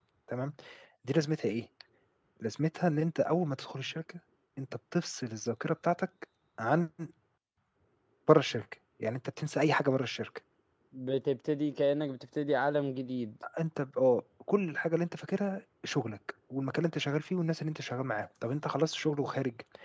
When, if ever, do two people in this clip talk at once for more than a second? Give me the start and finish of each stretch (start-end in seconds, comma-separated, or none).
none